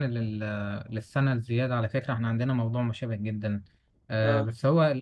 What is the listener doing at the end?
listening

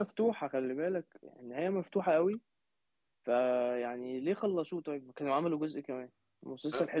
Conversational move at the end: listening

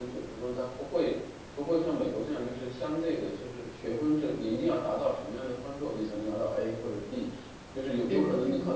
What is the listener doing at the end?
listening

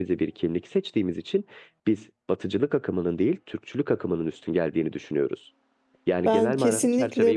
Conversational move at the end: taking over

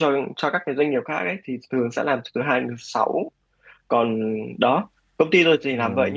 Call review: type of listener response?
listening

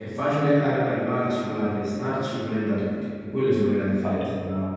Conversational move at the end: taking over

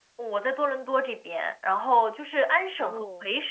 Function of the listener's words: listening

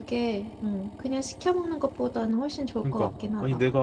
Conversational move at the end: taking over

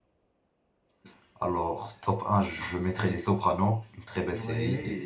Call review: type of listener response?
taking over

